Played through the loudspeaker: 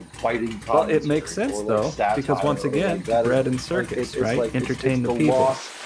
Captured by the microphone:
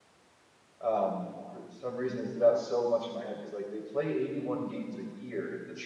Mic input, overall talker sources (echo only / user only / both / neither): user only